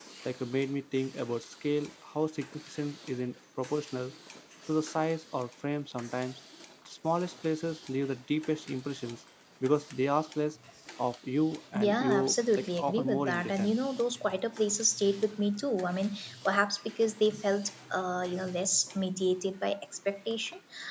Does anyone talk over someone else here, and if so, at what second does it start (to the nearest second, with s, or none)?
12 s